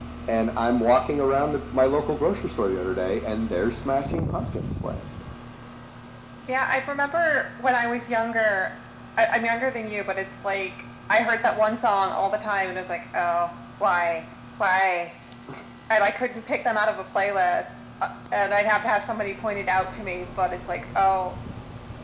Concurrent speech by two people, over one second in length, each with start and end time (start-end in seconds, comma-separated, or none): none